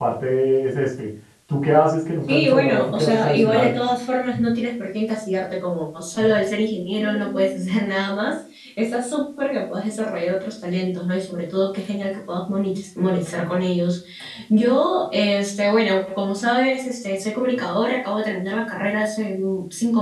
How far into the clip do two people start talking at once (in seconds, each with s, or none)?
2.3 s